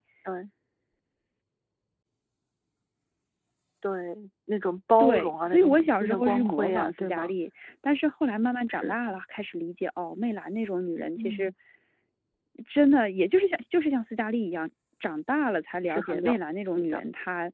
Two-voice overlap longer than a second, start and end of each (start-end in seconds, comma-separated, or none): 5.0-7.3